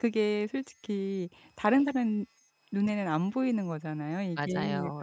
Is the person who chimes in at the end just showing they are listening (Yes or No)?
Yes